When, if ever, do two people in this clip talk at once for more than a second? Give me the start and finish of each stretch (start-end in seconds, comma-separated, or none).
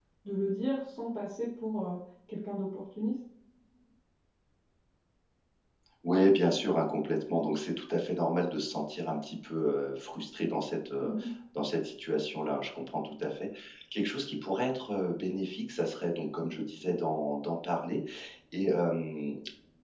none